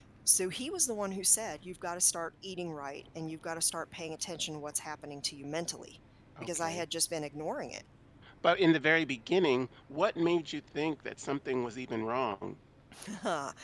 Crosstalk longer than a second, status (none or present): none